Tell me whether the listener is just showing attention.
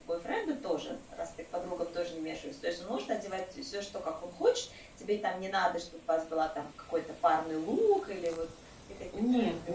No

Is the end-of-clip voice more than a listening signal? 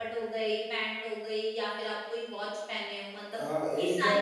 Yes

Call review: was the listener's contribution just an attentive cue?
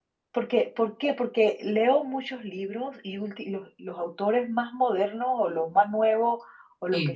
Yes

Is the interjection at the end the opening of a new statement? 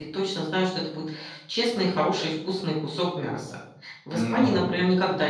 No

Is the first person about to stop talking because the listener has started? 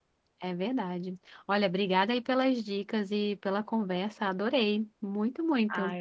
Yes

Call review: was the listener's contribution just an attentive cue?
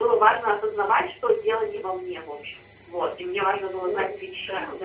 Yes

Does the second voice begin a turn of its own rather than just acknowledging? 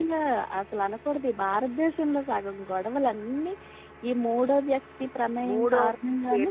Yes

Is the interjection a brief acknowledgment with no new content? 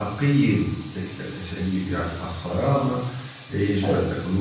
Yes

